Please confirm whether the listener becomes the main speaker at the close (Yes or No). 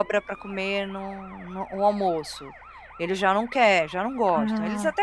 No